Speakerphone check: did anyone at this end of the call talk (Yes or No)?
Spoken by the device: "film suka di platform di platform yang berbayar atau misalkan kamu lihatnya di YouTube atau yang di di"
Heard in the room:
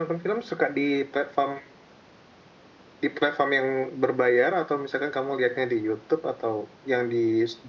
No